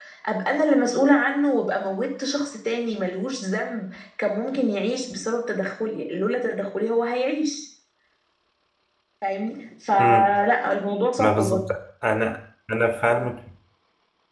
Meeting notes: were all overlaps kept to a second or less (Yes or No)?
Yes